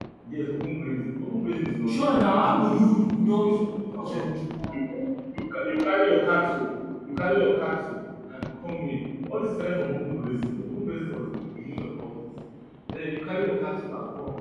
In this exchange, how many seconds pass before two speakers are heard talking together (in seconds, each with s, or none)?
1.9 s